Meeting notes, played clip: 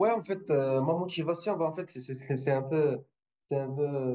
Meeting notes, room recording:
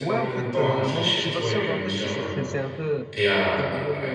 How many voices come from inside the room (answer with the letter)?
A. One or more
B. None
A